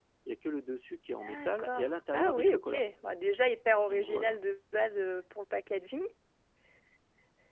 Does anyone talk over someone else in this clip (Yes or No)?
Yes